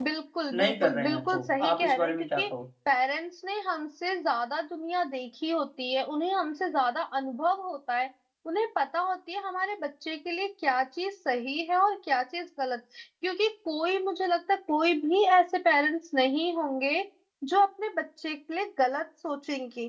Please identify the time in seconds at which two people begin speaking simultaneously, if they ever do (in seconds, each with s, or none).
0.5 s